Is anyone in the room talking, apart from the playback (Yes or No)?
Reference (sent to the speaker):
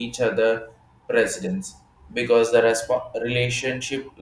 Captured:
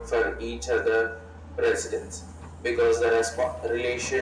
No